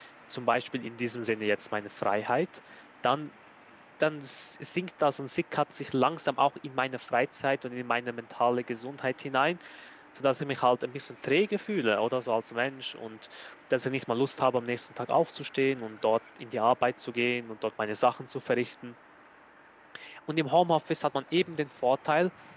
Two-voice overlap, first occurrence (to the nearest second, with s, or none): none